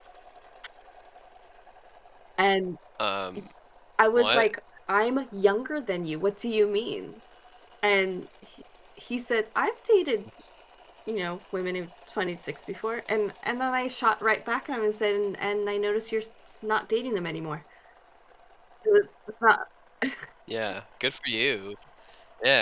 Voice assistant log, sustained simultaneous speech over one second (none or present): none